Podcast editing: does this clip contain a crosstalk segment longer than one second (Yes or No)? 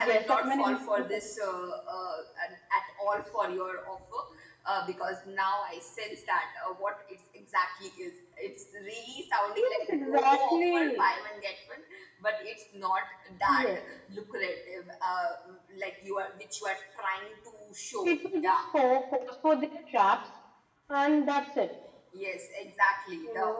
Yes